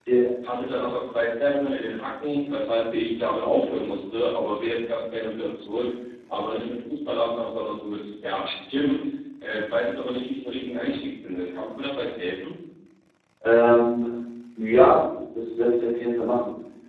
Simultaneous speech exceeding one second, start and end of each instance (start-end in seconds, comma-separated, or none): none